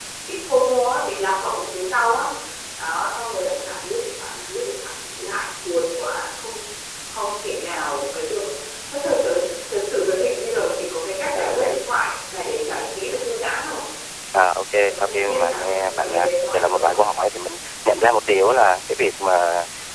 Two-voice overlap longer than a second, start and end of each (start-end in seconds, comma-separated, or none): 14.8-17.1